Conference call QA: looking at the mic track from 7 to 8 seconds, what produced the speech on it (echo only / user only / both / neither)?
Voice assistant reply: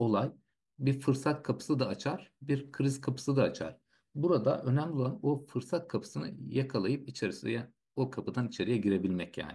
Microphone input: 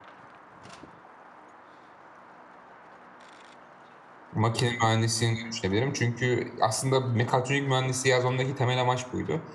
user only